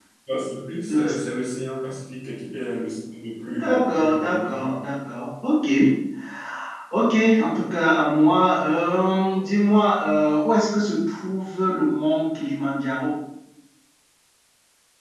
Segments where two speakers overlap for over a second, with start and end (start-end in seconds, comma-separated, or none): 3.4-4.7